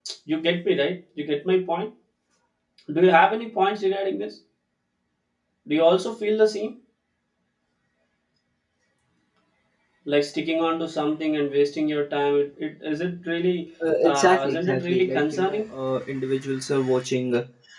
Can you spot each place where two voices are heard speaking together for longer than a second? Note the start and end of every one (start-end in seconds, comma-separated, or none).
14.0-15.6